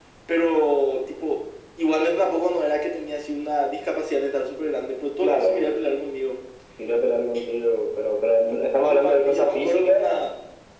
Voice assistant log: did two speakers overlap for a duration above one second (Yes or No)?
Yes